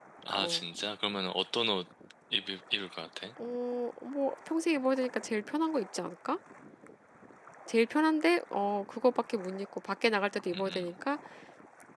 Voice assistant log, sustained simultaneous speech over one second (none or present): none